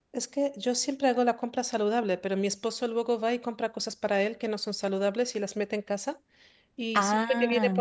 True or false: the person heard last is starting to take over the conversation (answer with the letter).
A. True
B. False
B